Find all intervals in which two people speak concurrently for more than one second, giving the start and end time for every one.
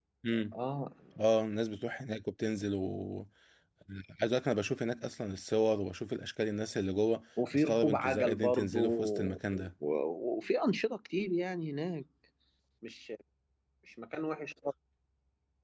7.5-9.4

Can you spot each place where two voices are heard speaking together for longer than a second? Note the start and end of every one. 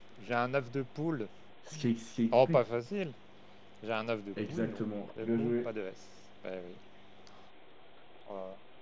4.5-5.7

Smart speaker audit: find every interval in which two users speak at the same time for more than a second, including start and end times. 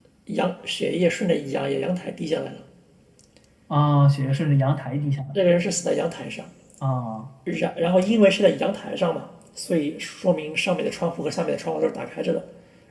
none

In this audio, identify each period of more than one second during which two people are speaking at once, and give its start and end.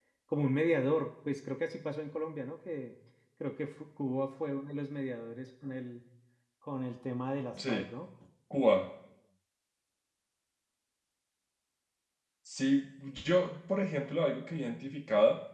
none

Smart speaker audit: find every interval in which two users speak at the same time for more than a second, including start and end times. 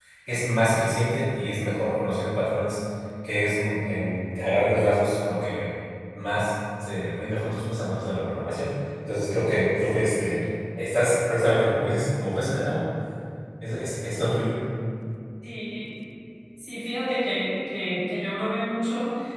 none

